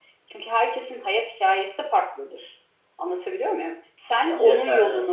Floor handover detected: No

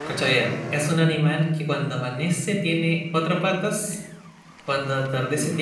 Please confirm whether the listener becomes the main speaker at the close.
No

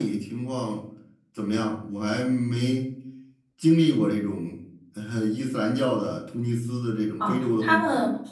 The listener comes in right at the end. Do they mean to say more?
Yes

